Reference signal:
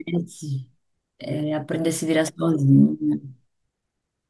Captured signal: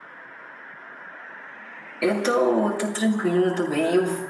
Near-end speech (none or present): present